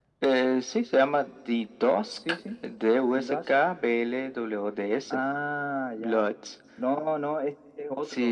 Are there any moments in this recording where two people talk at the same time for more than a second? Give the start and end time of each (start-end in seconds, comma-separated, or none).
none